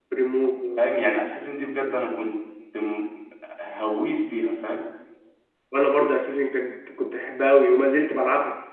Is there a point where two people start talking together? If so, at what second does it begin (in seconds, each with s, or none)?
none